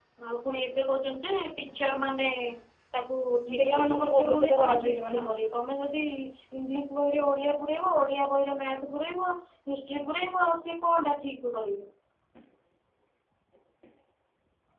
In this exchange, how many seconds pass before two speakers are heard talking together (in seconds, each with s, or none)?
3.6 s